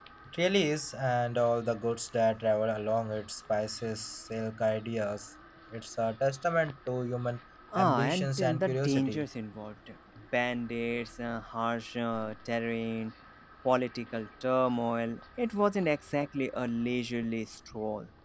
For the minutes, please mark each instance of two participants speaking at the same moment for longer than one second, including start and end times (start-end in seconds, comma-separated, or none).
7.8-9.2